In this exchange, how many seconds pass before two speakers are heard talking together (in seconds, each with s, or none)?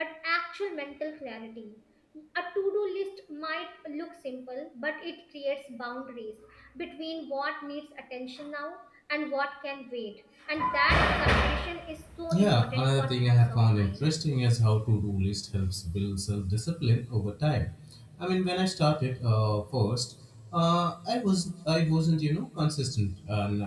12.3 s